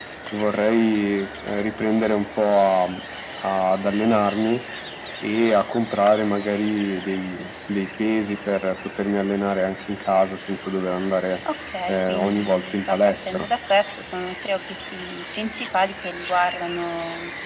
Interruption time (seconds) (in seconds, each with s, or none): 11.9 s